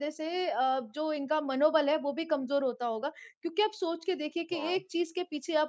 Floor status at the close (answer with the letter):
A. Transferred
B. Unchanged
B